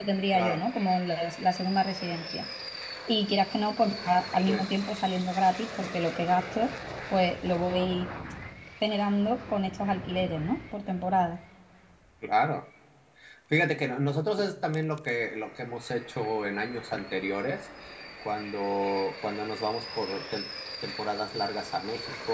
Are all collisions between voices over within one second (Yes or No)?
Yes